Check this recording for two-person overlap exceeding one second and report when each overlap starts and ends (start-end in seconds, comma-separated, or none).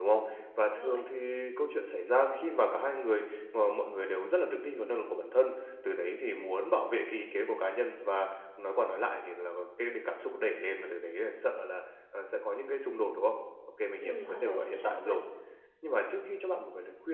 14.0-15.2